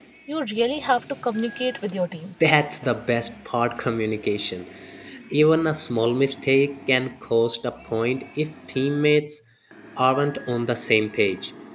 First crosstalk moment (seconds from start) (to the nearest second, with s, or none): none